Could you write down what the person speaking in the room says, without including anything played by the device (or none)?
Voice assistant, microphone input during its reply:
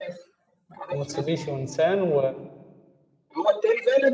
ماتسوبيشي ونيسان و